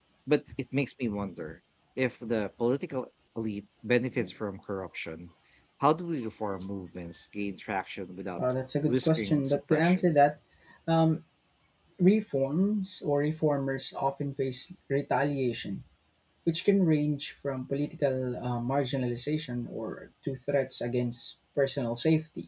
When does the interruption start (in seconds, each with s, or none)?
8.9 s